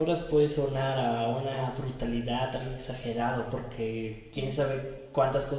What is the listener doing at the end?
listening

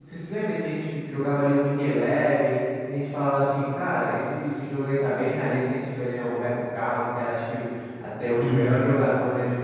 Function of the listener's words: listening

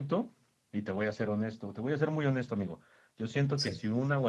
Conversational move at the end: listening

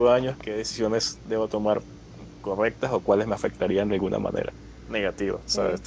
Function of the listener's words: listening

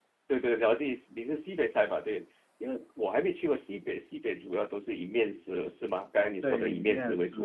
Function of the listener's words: taking over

